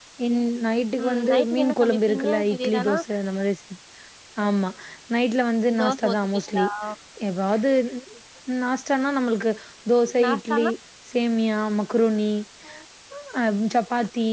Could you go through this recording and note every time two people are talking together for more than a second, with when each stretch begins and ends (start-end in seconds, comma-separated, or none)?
1.0-2.9